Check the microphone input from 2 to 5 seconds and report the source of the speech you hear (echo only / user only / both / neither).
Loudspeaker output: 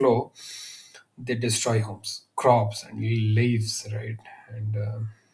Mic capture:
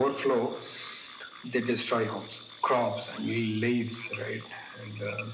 echo only